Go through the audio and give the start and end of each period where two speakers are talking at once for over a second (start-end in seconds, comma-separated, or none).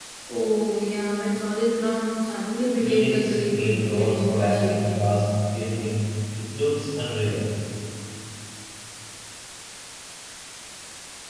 2.8-5.1